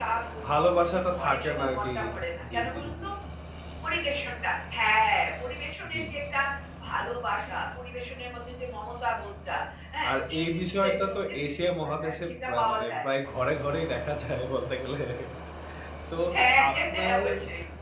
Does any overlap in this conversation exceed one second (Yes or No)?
Yes